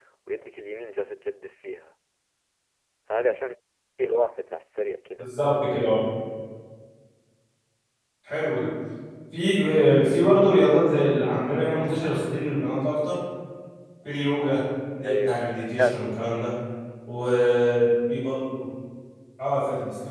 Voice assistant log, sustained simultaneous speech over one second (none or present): present